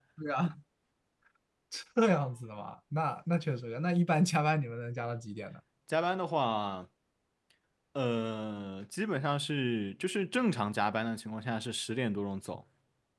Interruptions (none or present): none